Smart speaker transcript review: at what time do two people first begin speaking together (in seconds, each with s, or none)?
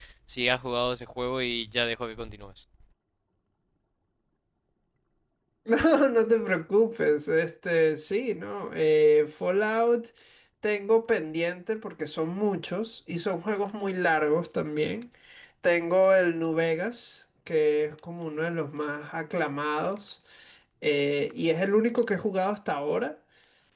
none